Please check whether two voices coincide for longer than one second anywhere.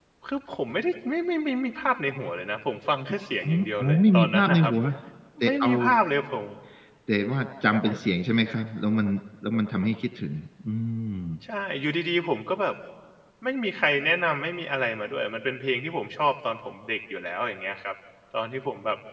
Yes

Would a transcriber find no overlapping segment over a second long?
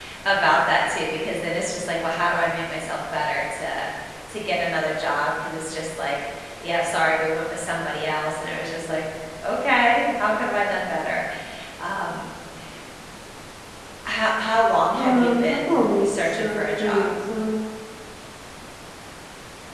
No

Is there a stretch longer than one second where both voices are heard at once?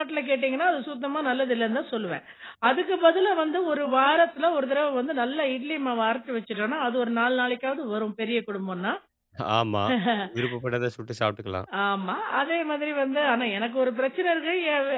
No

